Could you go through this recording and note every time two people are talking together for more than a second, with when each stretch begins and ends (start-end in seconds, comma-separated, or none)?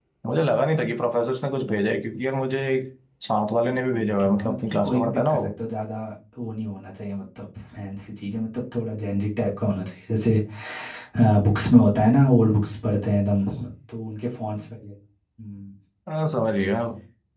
4.2-5.5